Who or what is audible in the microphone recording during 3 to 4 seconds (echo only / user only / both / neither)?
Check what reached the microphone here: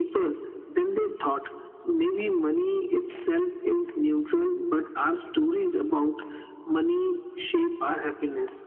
echo only